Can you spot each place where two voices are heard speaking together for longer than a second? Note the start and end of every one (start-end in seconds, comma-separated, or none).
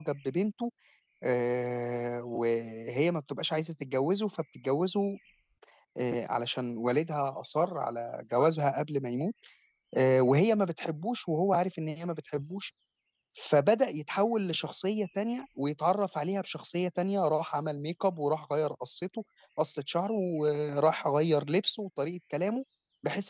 none